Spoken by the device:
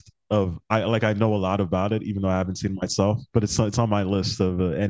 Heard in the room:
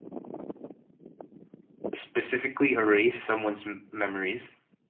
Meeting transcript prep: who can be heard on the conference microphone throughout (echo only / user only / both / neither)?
user only